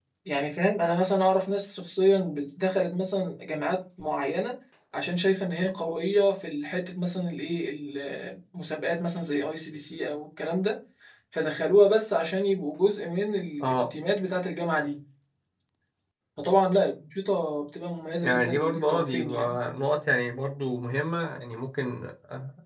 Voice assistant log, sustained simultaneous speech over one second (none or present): present